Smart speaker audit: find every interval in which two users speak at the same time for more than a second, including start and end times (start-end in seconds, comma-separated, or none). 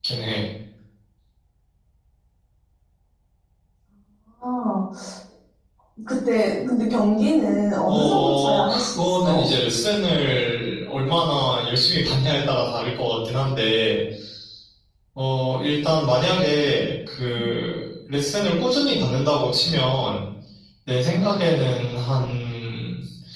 7.9-9.5